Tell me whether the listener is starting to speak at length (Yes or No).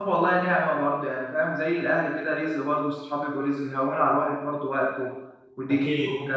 Yes